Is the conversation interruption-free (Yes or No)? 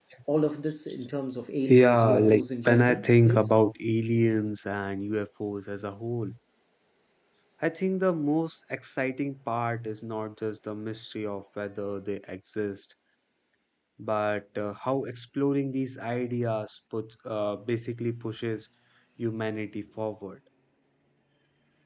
No